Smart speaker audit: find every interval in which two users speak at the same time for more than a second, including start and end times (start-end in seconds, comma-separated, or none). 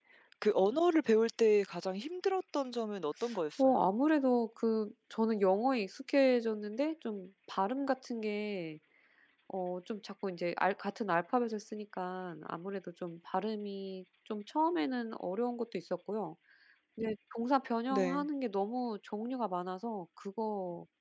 none